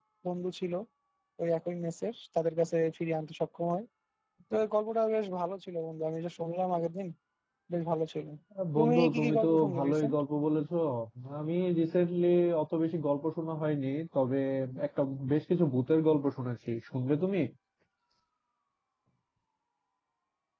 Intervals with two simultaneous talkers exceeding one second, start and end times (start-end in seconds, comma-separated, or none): 8.8-10.2